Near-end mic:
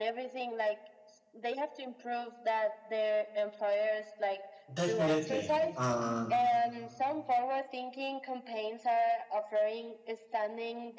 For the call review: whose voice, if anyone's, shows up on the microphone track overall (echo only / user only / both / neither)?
both